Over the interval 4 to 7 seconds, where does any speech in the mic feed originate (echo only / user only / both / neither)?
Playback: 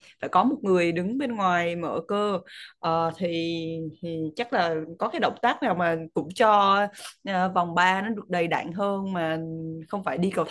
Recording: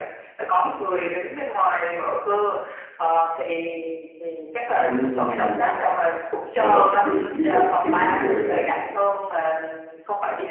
both